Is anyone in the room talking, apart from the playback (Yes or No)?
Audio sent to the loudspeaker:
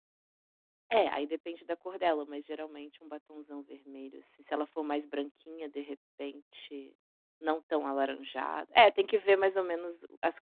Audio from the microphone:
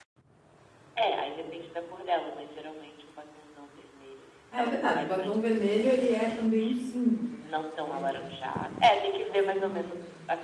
Yes